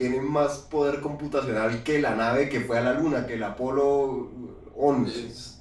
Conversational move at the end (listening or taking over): taking over